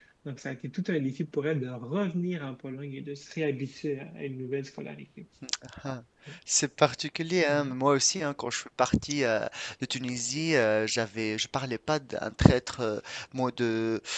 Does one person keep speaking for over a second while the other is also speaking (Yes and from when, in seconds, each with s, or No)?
No